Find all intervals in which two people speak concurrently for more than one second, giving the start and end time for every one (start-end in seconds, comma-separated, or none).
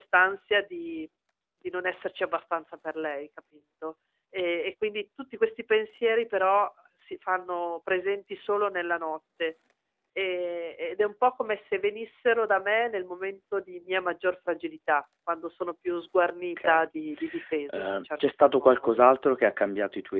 17.7-19.0